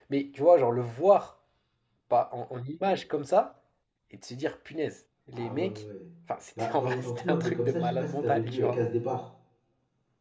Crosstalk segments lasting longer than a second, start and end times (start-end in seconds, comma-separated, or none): 6.6-8.8